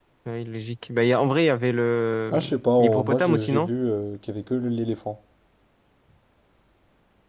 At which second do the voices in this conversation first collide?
2.3 s

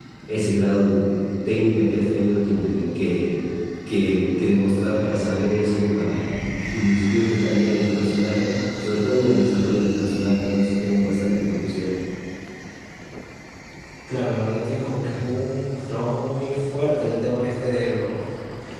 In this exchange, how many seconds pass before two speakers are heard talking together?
none

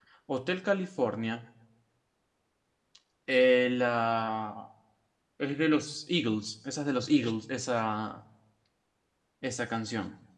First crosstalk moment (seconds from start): none

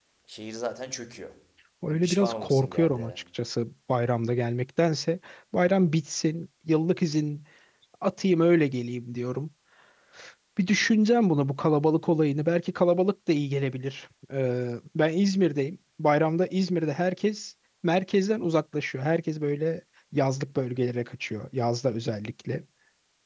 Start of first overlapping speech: 1.9 s

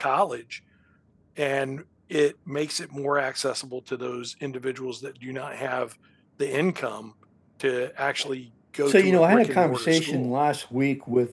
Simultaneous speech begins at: 8.9 s

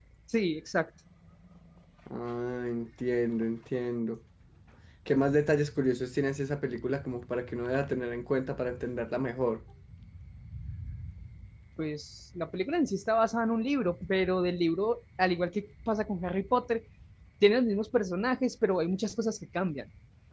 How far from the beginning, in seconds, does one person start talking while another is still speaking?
none

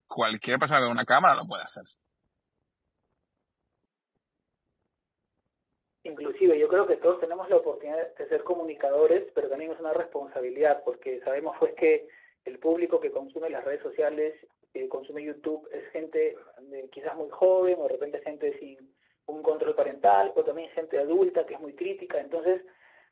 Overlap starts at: none

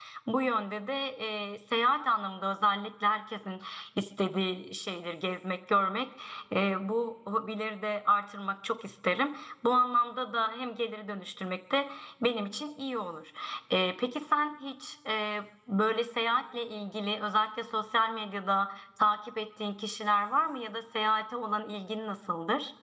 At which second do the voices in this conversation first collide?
none

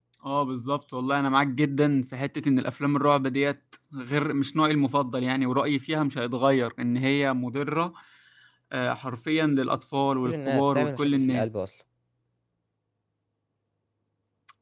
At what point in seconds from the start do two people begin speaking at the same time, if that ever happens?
10.2 s

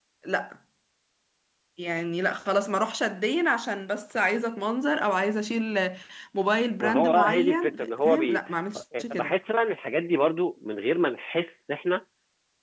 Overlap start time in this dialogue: 6.8 s

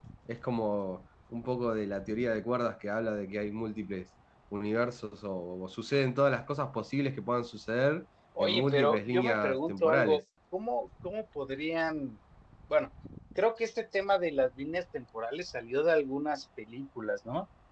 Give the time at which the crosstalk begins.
8.4 s

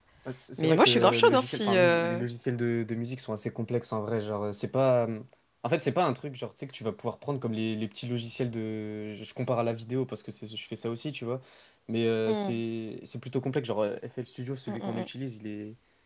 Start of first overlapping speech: 0.6 s

